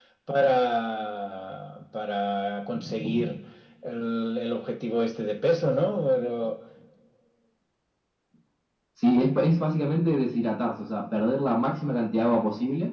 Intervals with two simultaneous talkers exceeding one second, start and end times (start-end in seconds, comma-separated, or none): none